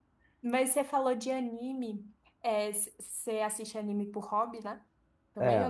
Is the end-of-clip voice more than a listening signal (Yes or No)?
Yes